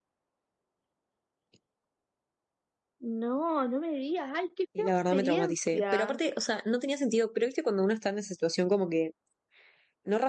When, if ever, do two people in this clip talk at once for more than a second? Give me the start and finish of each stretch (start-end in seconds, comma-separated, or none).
4.8-6.2